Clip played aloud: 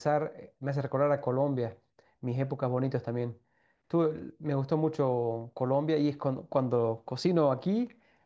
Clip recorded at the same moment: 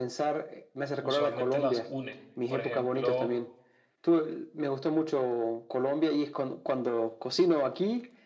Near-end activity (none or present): present